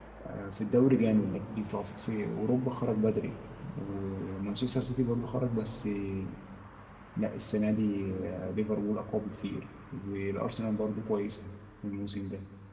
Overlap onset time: none

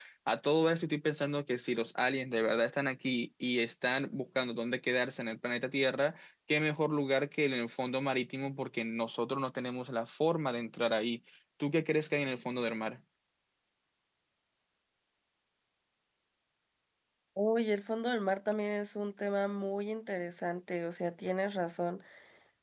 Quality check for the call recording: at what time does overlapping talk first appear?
none

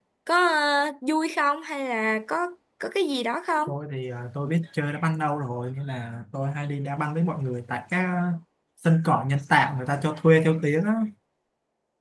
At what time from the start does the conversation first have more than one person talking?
none

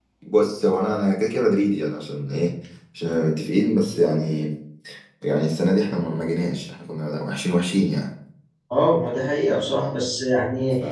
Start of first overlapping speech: none

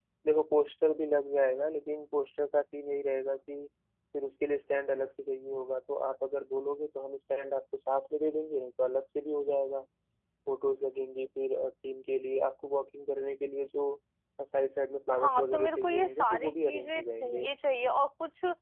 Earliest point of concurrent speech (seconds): 15.2 s

